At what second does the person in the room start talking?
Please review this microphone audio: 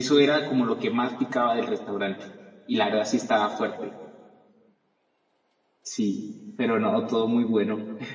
none

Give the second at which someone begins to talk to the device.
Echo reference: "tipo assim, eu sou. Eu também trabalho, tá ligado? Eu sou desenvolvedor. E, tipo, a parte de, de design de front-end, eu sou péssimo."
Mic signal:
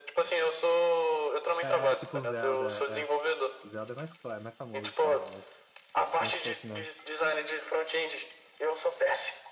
1.6 s

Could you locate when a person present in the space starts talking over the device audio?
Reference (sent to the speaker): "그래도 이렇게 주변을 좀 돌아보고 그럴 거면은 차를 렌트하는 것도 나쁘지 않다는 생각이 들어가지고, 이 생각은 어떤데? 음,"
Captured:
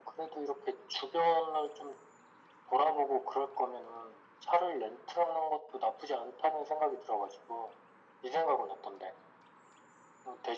none

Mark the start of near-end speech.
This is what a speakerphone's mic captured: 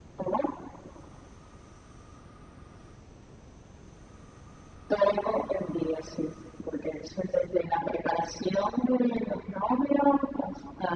none

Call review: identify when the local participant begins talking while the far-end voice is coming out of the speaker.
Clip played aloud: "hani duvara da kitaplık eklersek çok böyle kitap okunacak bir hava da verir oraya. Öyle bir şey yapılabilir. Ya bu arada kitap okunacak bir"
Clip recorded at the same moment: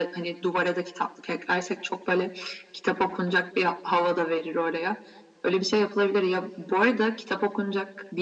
none

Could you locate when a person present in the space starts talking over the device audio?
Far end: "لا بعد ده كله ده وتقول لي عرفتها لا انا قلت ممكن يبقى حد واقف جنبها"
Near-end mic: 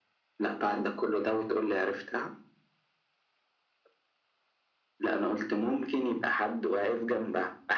none

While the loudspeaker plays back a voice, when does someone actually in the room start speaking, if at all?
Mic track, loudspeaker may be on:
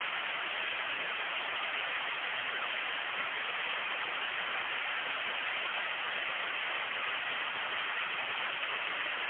none

